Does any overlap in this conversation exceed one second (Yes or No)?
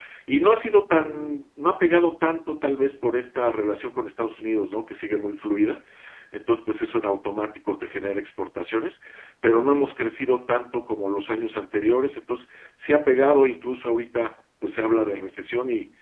No